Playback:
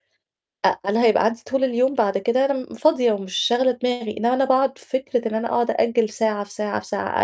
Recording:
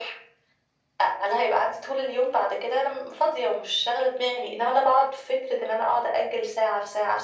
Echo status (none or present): present